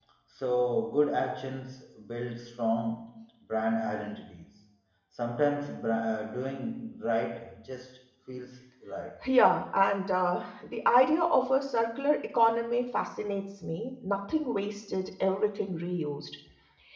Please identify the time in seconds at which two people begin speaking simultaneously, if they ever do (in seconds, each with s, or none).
none